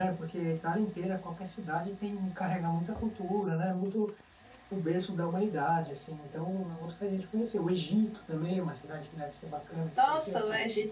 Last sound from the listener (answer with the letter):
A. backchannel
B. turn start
B